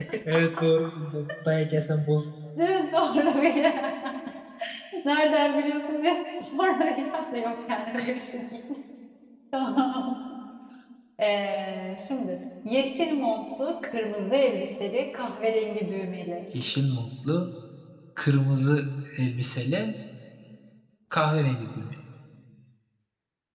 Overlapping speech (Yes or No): No